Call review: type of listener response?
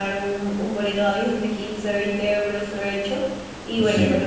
listening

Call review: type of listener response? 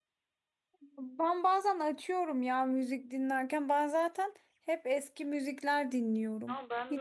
taking over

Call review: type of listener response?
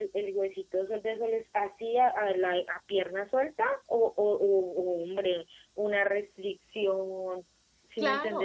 taking over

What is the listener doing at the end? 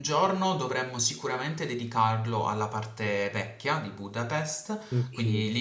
listening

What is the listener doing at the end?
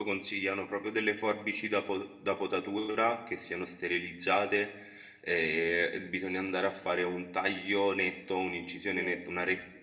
listening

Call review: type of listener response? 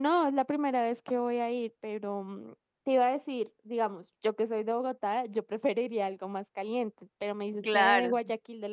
listening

